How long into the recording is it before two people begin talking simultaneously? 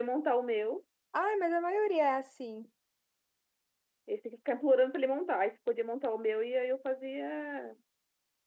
none

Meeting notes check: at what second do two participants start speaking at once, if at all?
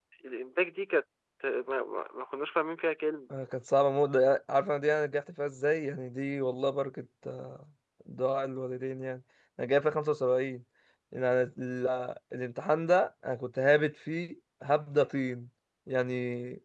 none

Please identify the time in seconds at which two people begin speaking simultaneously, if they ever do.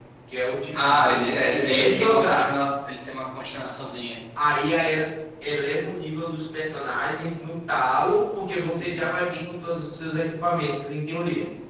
0.8 s

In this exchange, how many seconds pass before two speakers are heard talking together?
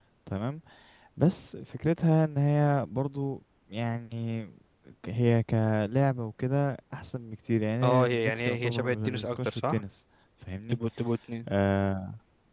7.8 s

